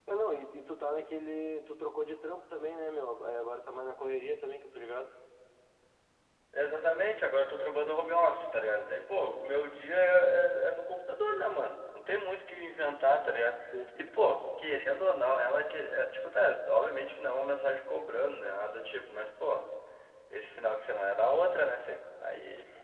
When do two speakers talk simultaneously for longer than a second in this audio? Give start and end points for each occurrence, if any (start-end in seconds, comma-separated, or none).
none